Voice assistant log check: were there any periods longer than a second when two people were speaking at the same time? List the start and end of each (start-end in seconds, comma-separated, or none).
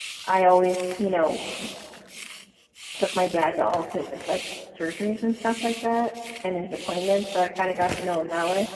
none